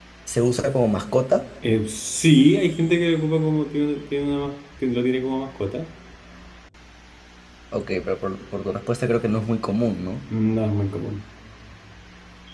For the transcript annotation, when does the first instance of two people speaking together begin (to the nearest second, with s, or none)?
none